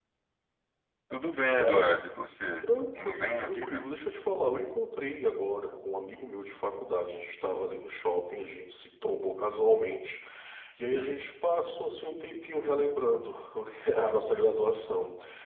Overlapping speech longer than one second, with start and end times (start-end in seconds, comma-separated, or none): 2.6-3.9